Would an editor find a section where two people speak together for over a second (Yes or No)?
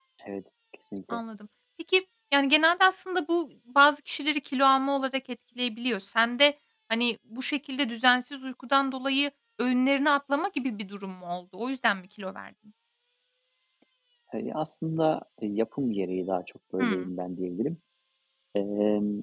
No